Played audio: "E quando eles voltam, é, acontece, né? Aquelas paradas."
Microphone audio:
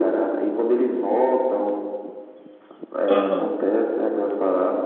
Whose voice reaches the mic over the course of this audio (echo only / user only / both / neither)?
both